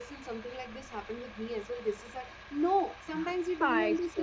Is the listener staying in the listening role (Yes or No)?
Yes